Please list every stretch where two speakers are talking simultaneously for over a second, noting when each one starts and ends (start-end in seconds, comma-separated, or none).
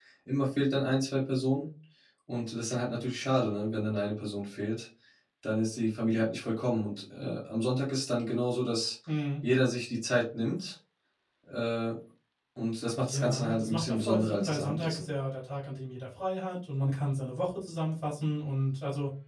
13.0-15.1